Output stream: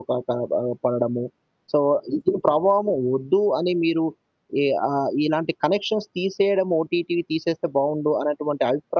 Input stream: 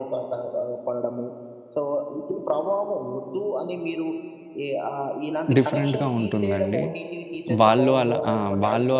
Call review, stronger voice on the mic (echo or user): user